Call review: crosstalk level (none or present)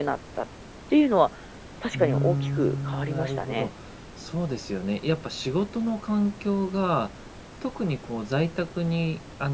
present